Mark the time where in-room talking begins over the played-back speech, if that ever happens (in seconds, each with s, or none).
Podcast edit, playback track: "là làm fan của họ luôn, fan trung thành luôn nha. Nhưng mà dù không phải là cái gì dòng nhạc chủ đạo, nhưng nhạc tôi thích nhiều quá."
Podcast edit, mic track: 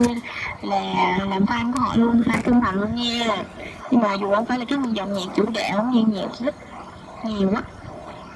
none